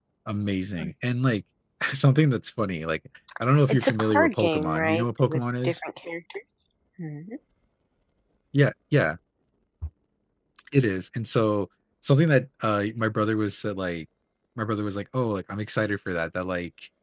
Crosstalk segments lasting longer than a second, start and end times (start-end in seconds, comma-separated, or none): 3.7-5.8